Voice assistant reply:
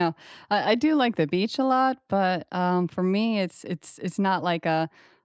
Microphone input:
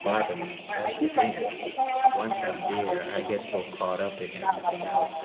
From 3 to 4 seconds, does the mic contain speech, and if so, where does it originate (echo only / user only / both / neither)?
both